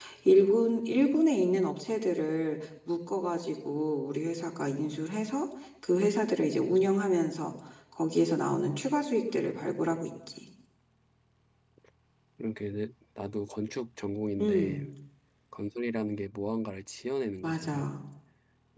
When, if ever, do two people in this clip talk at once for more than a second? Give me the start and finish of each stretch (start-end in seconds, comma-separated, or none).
none